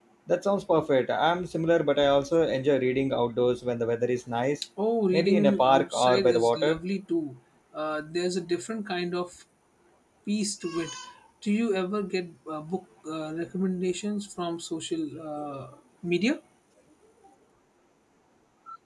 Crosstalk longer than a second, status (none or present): present